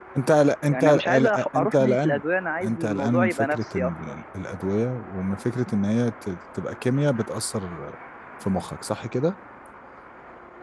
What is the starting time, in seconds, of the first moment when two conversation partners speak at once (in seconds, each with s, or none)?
0.7 s